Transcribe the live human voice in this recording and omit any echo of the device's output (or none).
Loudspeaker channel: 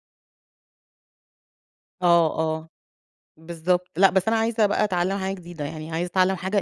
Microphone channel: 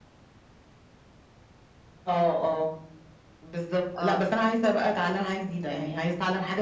آه.